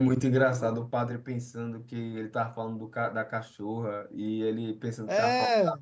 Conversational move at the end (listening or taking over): listening